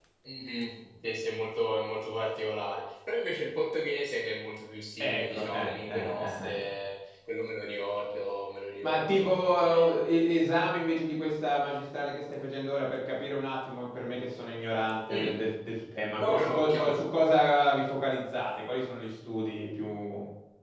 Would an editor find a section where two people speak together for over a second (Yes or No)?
Yes